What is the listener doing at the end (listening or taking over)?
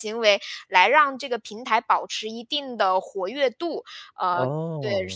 listening